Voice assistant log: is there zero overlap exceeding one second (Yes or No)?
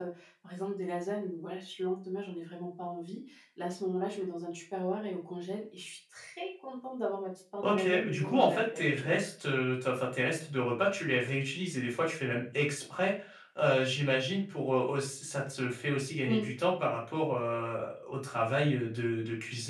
No